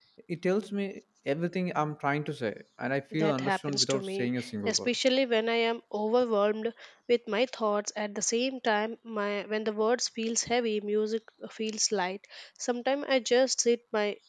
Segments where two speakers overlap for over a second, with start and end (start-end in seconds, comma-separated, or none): 3.1-4.9